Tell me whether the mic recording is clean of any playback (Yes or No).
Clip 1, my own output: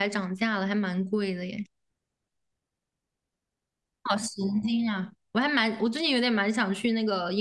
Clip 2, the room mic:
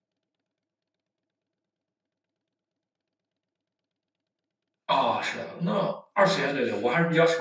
Yes